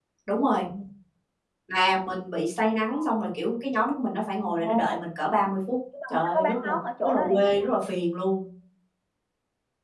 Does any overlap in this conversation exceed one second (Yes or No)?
Yes